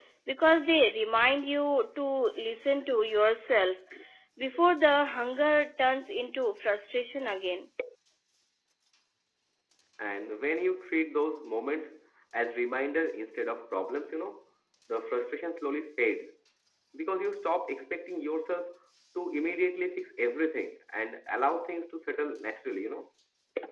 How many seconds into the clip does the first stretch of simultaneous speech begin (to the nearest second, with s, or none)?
none